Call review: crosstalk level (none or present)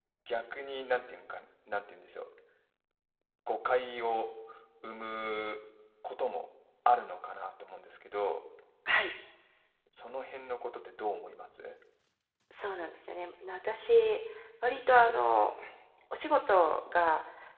none